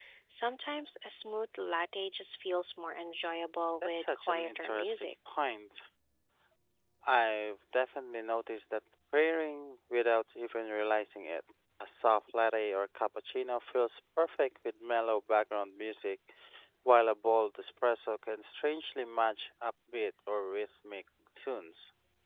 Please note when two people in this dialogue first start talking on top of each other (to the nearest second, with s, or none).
4 s